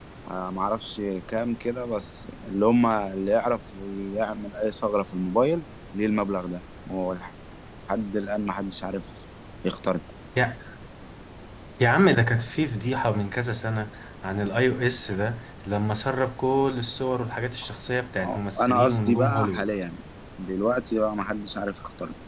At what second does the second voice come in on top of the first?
18.2 s

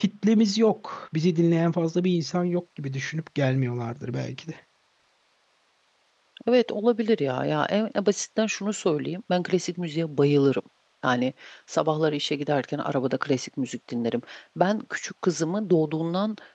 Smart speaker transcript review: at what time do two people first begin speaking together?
none

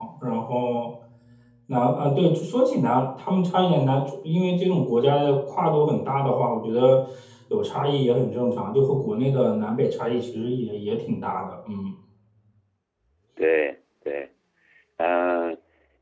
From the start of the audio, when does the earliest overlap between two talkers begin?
none

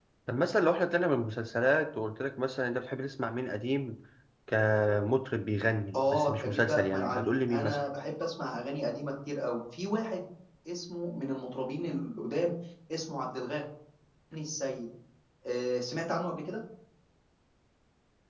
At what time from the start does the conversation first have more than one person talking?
5.9 s

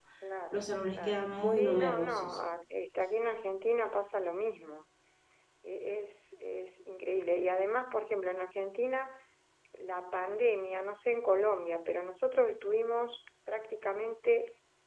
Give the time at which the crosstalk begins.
0.5 s

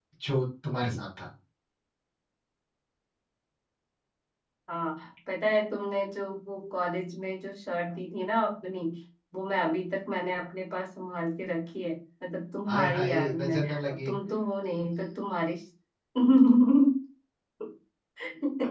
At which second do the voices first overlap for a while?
12.7 s

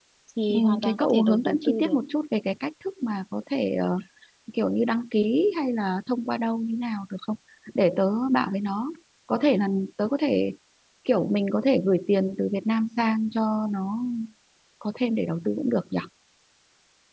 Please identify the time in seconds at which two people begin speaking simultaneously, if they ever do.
0.5 s

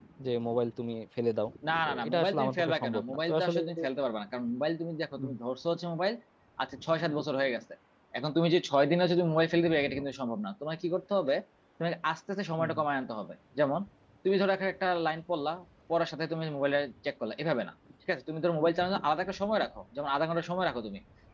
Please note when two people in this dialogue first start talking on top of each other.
1.8 s

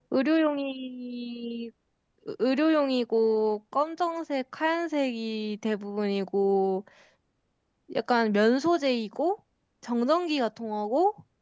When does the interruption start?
none

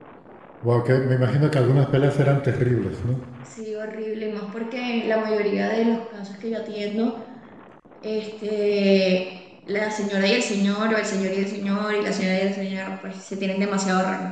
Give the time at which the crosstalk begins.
none

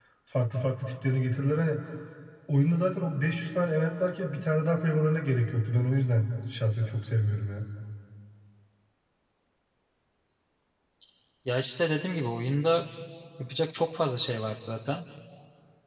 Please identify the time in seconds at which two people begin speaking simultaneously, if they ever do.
none

